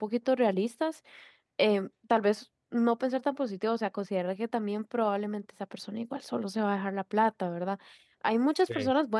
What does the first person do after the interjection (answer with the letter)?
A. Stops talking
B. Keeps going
B